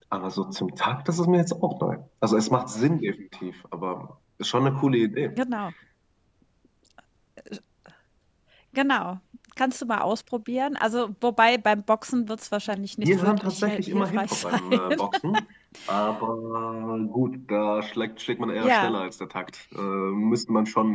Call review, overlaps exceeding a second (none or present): present